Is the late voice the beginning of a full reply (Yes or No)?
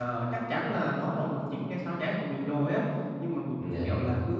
No